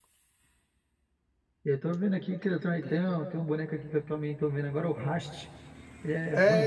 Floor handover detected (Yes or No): Yes